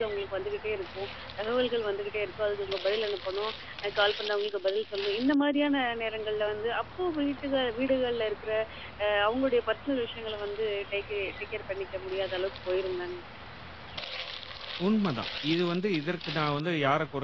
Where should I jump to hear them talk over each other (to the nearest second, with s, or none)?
none